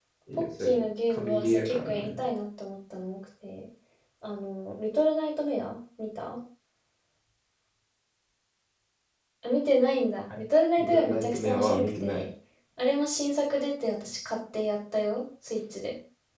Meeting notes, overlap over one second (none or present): present